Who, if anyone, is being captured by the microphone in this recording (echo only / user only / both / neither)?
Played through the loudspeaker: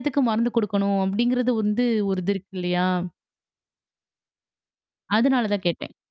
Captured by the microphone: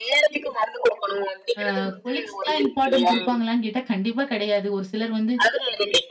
both